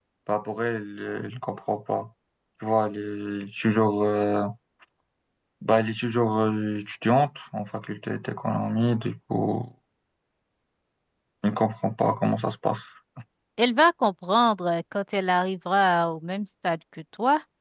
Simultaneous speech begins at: none

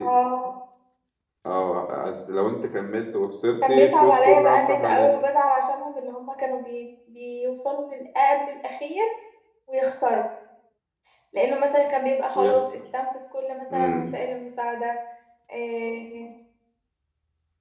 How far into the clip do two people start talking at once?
4 s

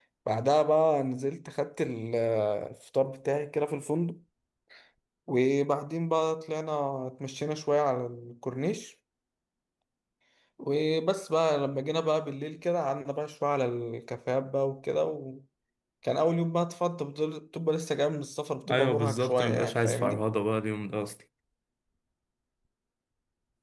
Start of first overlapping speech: 19 s

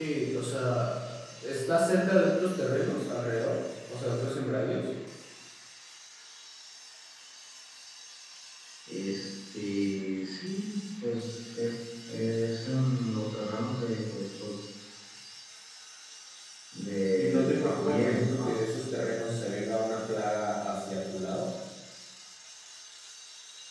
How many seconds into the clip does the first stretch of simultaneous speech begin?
17 s

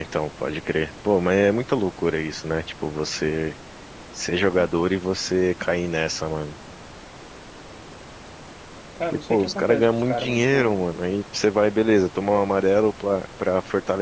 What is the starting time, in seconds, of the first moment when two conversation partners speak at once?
9 s

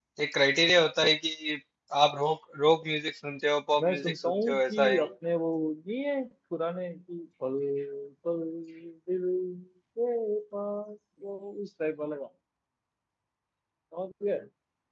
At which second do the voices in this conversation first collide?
4 s

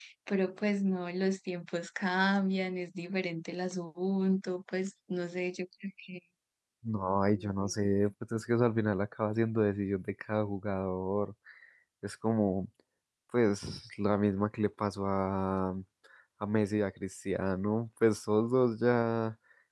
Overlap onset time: none

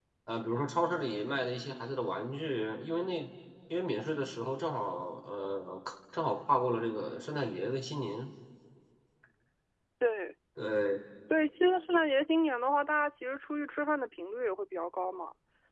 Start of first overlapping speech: none

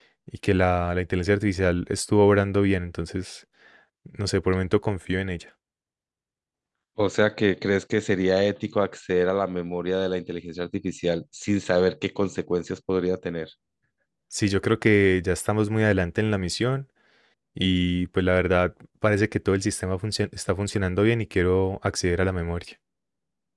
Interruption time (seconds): none

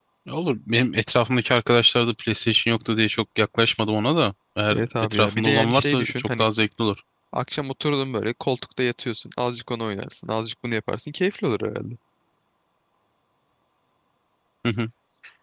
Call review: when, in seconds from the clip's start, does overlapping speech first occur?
5 s

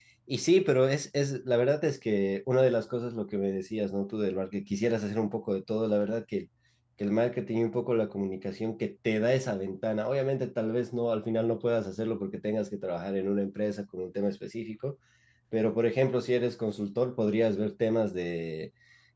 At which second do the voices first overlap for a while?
none

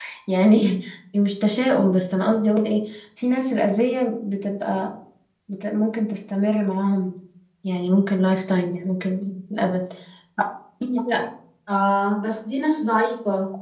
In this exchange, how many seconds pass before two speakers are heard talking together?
none

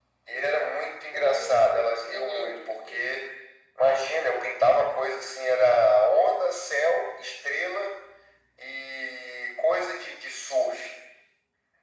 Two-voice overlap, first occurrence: 1 s

